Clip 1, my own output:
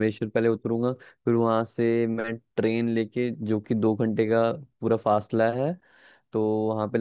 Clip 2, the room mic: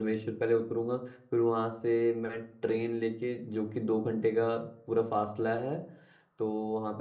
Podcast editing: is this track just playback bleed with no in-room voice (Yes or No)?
Yes